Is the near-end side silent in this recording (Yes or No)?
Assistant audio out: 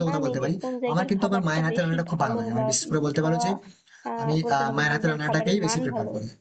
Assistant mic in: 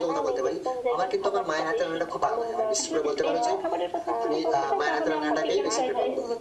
No